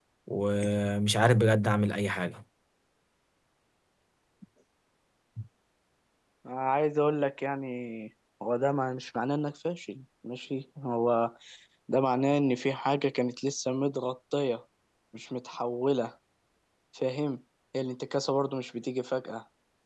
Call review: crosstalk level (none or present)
none